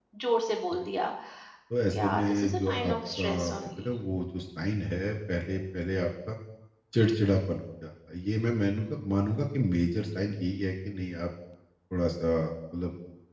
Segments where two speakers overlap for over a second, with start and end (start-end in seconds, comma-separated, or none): 1.8-3.9